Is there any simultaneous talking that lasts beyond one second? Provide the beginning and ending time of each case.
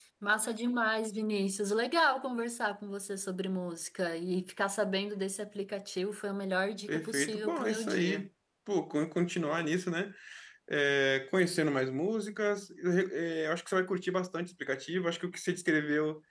6.9-8.3

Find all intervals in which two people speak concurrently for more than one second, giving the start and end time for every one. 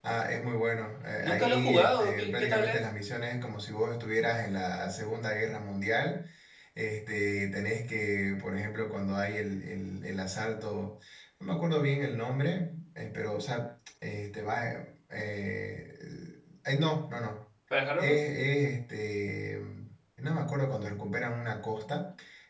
1.2-2.8

